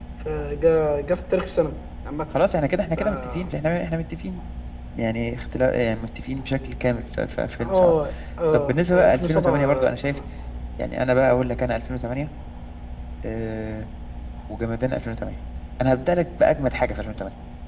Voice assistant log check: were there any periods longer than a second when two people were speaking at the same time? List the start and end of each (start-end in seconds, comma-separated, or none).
8.5-10.2